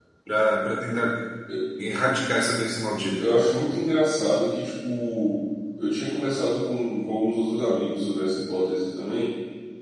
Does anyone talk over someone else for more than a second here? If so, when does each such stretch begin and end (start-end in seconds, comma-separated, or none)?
none